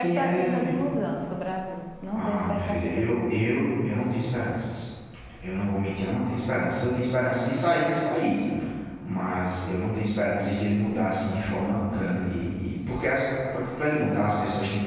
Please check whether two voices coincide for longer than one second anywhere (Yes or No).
Yes